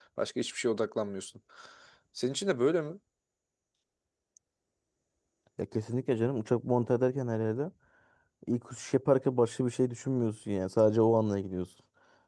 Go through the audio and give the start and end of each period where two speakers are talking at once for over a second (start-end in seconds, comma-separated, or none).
none